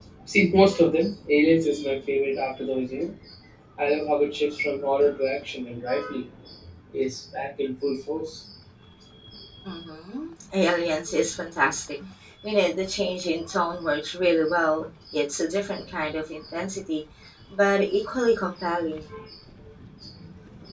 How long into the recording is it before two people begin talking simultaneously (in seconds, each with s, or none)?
none